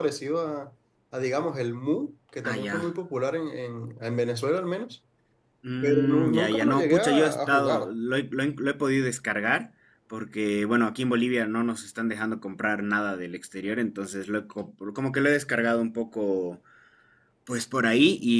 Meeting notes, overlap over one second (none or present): present